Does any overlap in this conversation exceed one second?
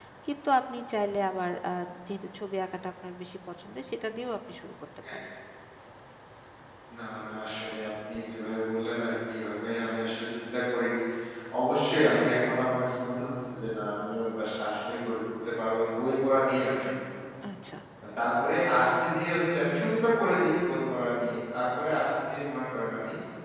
No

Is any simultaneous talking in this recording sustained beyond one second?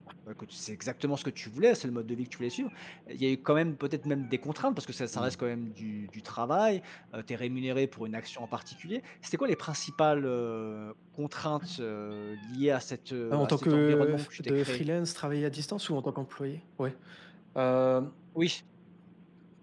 Yes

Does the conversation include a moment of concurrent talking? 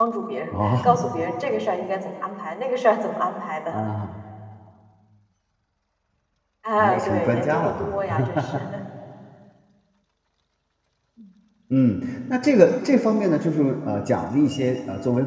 Yes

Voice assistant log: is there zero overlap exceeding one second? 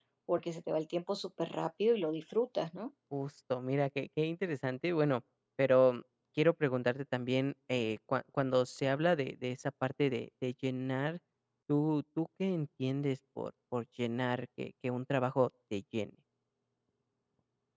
Yes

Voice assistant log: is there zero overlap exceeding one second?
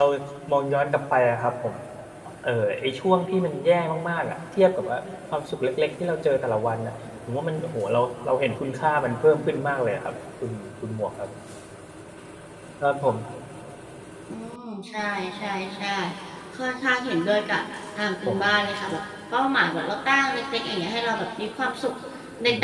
Yes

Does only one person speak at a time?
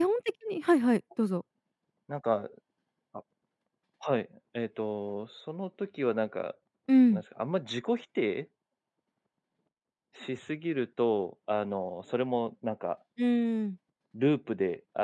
Yes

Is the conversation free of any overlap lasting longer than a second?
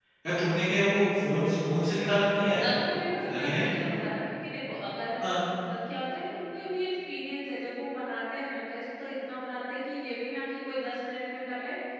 Yes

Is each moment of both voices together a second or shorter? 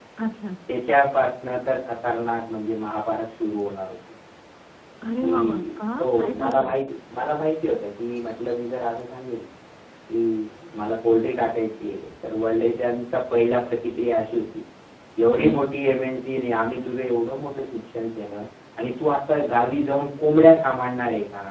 No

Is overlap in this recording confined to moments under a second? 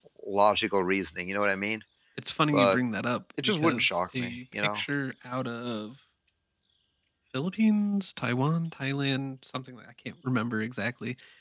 No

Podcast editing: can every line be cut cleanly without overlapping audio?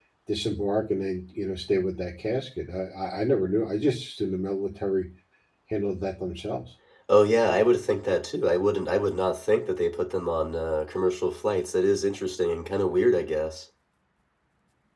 Yes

